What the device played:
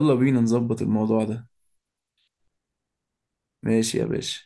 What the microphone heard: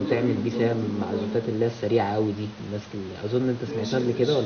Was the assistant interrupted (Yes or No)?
Yes